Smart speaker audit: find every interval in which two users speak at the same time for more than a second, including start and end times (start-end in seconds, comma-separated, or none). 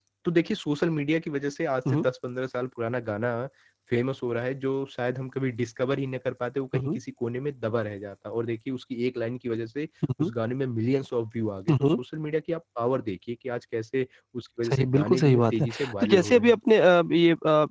14.7-16.6